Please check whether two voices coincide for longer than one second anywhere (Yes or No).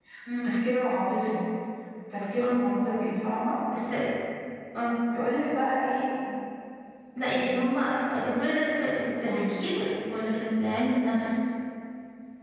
No